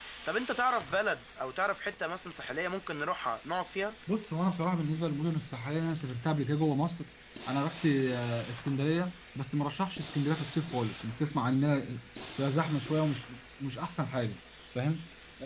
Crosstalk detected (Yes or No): No